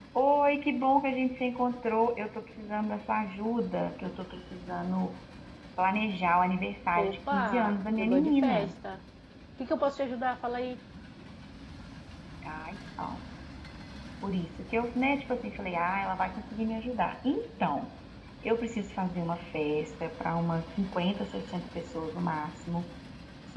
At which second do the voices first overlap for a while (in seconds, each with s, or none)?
6.9 s